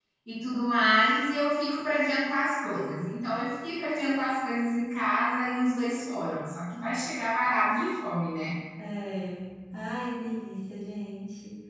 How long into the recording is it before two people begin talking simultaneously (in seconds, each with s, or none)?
none